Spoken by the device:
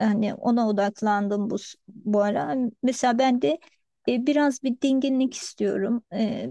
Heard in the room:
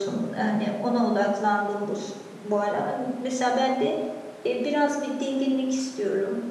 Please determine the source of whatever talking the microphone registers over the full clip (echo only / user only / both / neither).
echo only